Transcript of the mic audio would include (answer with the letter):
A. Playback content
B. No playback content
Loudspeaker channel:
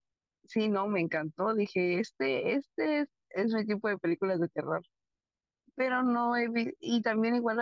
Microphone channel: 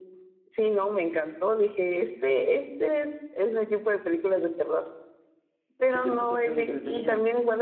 A